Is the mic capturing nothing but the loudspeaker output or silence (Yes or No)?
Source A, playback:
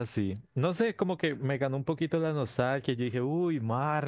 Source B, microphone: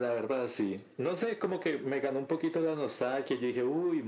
Yes